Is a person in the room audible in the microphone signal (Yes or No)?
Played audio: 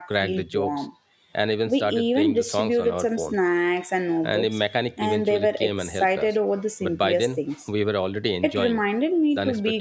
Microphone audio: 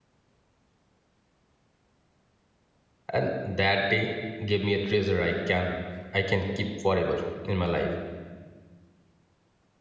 Yes